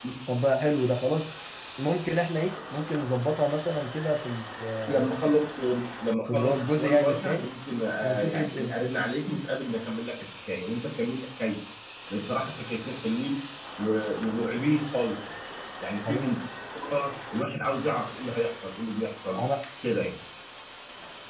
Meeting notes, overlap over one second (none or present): present